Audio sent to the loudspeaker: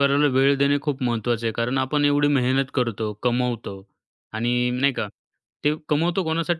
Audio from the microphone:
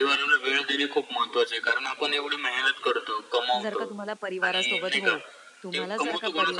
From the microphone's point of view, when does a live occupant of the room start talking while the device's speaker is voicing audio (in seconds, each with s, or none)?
3.6 s